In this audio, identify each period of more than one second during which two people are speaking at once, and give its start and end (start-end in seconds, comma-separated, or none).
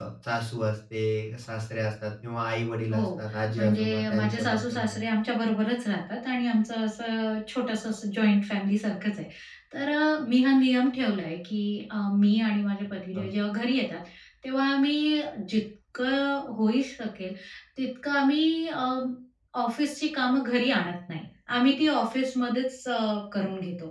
3.6-5.0